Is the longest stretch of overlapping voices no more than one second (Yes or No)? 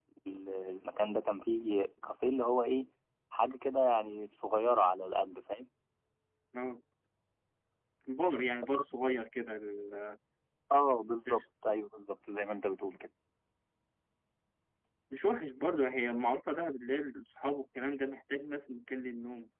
Yes